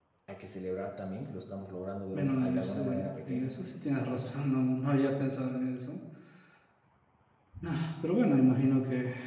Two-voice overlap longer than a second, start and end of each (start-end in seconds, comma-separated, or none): 2.1-3.5